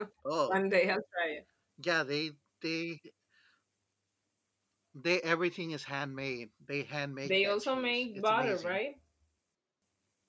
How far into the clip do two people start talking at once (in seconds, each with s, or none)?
7.2 s